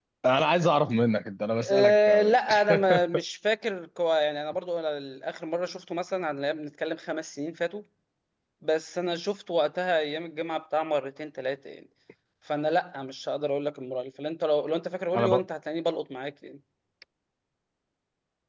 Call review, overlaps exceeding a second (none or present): present